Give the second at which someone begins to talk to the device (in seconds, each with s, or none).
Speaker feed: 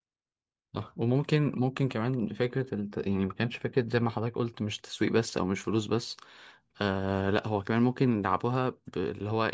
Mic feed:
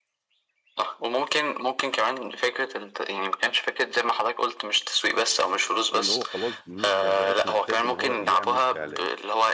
5.9 s